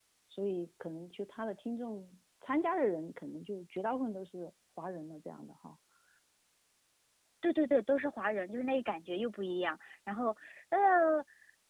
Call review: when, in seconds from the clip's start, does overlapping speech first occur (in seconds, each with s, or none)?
none